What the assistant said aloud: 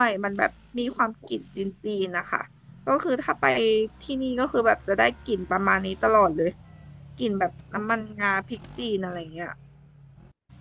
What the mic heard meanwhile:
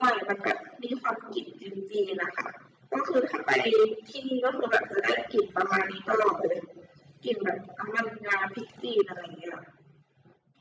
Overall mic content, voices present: echo only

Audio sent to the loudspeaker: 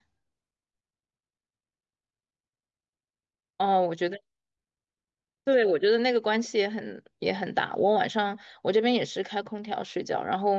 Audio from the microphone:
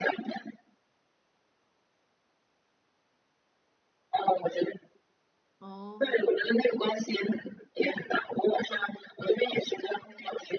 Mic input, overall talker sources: both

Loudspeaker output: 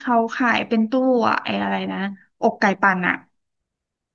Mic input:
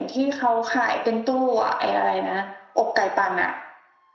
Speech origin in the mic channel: echo only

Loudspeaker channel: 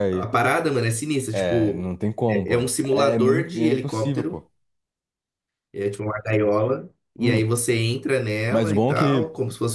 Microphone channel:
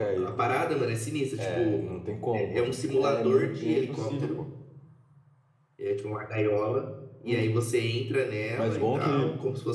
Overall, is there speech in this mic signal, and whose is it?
echo only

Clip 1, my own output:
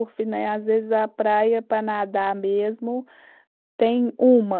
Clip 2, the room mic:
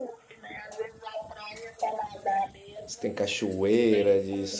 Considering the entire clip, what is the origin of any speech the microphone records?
both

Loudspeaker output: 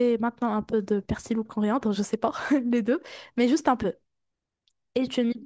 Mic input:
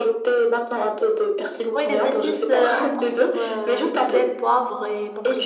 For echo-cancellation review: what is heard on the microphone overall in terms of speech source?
both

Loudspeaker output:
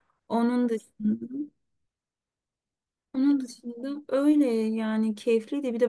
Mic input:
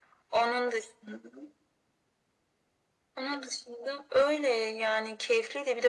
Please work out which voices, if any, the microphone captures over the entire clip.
echo only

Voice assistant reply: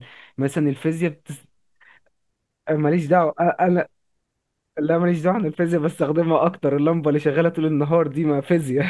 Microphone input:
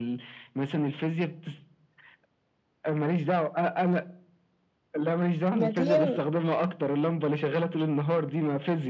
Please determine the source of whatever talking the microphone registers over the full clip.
both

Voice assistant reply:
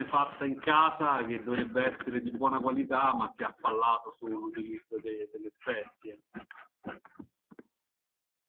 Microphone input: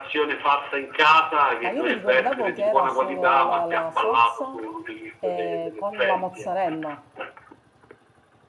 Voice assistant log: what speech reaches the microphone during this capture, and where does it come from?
both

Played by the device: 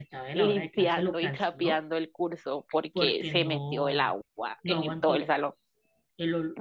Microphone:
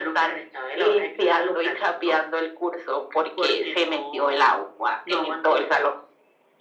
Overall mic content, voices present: echo only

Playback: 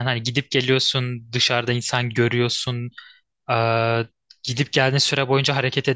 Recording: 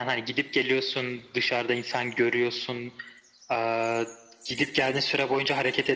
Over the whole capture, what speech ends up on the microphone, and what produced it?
echo only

